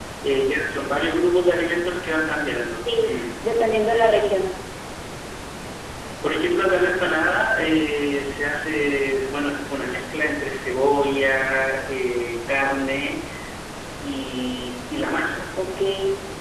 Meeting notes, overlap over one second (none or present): none